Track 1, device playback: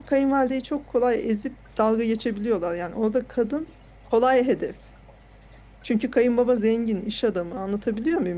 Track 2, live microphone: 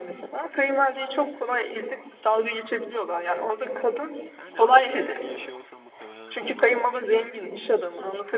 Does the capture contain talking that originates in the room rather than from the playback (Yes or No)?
Yes